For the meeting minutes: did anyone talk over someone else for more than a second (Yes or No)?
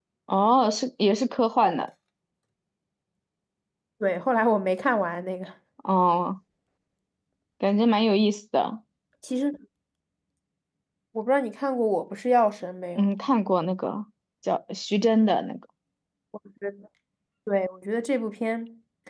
No